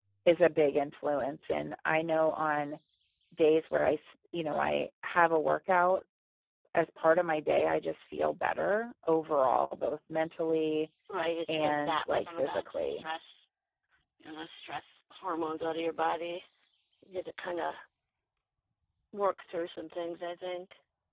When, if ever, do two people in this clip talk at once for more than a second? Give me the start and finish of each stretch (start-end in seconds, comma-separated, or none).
11.5-13.1